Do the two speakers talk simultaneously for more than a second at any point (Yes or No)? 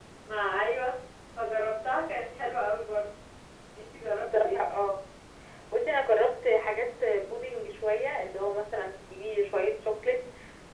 No